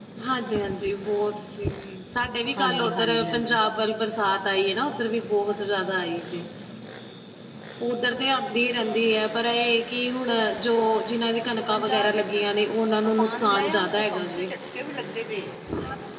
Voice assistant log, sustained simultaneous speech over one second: present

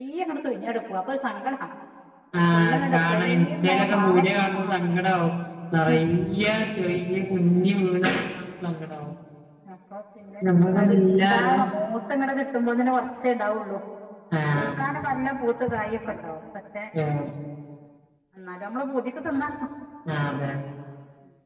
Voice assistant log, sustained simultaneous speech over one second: present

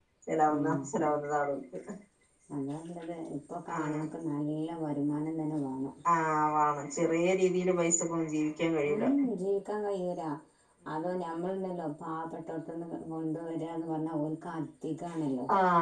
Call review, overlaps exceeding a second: none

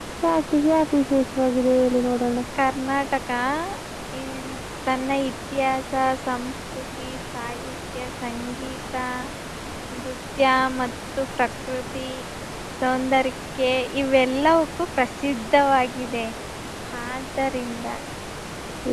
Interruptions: none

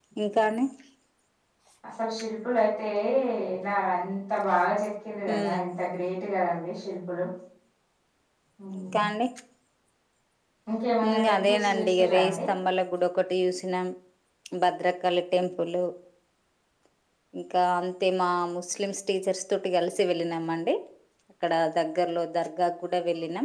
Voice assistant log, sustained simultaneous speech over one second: present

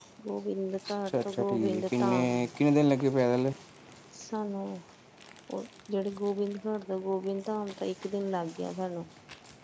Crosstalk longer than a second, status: present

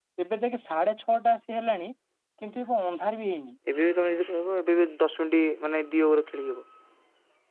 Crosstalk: none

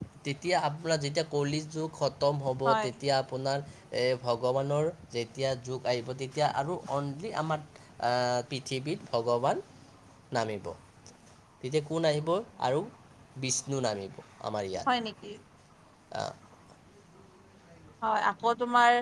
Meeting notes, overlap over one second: none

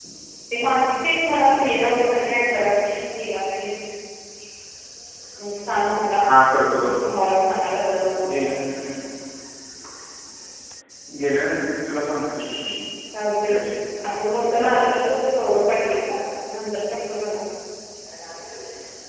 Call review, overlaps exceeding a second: none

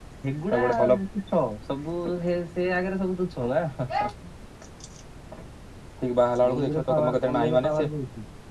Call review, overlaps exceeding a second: present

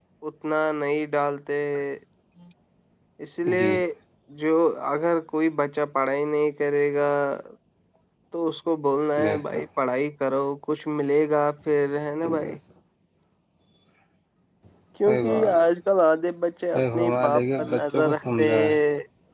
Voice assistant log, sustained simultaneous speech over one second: present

